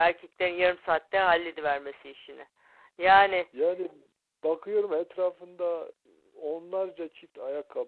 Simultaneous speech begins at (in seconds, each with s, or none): none